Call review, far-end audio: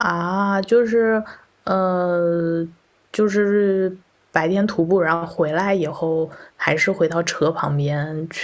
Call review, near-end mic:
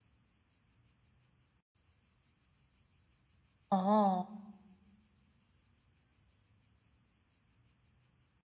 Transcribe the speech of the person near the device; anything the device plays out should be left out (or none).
哦，